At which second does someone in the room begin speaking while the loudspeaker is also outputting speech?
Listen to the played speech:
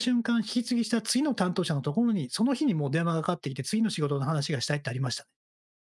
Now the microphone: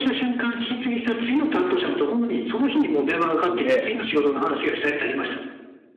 3.5 s

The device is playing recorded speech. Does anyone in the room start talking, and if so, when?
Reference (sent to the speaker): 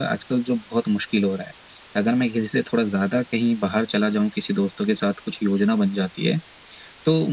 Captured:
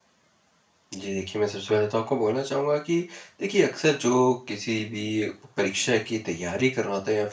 0.9 s

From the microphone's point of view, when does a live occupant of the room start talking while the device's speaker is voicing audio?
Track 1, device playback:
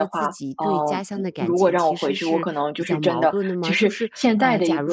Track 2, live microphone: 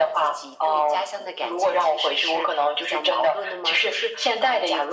none

